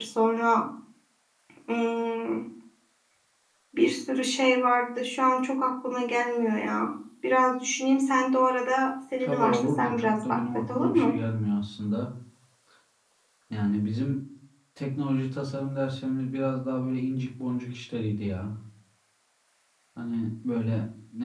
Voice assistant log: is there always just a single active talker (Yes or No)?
No